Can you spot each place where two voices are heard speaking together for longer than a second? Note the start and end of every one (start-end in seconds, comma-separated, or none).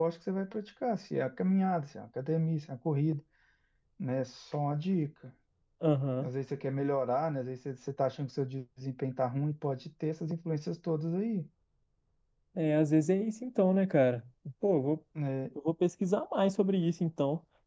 none